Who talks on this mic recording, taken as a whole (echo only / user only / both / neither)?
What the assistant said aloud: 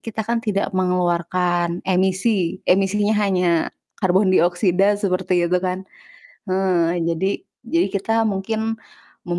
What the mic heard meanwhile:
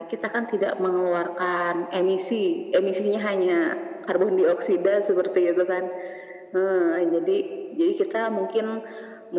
echo only